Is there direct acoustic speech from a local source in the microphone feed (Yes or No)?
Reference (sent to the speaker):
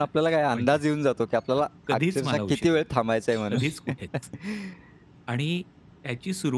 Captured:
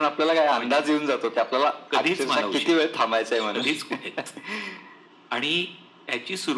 No